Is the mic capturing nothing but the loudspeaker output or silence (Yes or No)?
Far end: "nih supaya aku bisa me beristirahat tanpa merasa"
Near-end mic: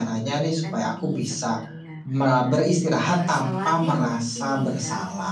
No